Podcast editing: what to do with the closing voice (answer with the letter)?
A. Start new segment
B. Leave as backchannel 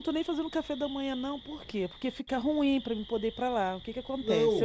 A